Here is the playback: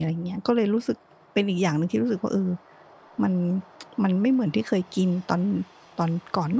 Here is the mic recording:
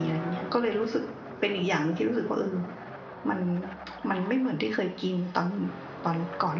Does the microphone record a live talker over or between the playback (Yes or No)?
No